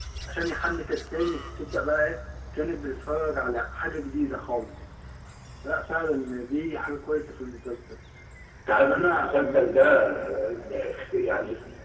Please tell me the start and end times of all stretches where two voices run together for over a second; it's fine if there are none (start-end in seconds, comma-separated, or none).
8.7-10.0